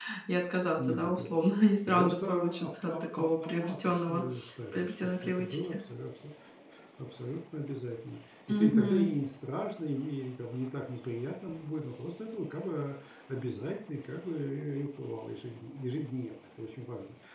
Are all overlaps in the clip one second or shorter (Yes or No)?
No